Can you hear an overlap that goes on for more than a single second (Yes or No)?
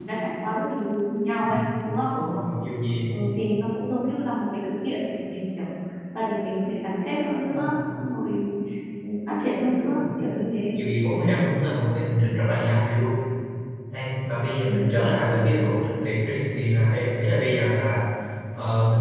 No